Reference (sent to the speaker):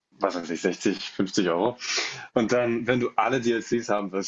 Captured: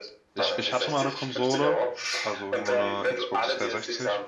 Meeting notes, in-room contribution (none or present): present